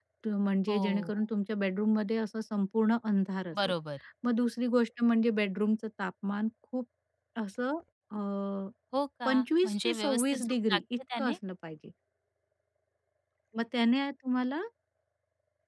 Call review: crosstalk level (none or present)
present